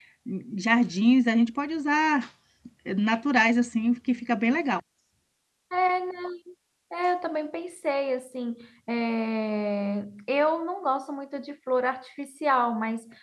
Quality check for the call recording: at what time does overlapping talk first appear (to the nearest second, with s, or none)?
none